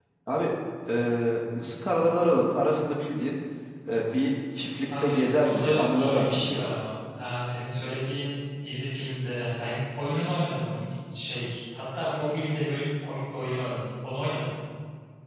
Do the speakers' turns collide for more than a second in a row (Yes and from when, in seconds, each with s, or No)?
Yes, from 4.9 s